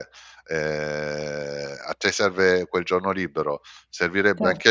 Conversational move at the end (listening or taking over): listening